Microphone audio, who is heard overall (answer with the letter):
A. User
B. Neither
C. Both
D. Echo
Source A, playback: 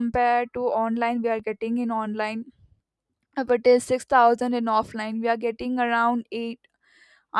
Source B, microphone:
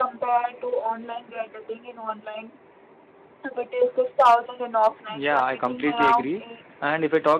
C